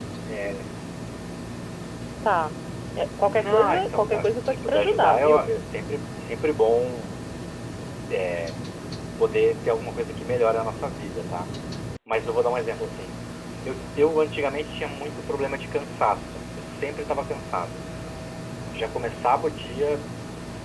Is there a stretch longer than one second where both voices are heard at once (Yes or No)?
Yes